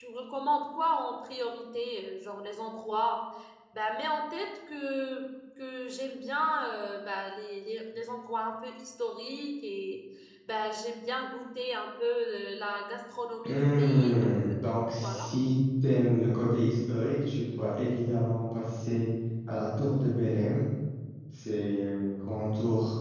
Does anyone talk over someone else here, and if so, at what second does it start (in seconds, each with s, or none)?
13.4 s